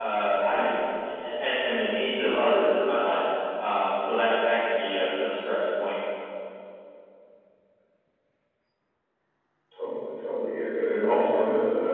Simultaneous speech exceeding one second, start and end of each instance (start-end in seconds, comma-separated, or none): none